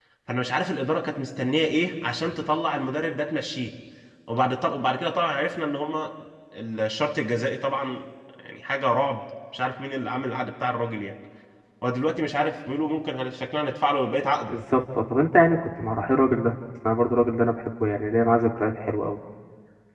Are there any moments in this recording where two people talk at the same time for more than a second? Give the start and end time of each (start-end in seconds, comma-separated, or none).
none